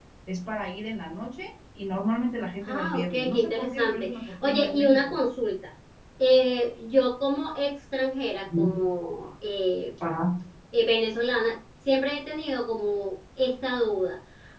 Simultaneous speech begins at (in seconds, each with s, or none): 2.6 s